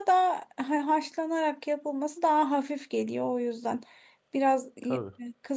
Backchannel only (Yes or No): Yes